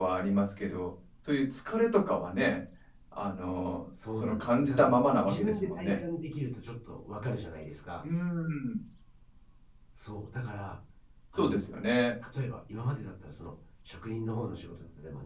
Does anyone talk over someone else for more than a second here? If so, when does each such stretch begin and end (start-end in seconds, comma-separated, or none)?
4.2-6.0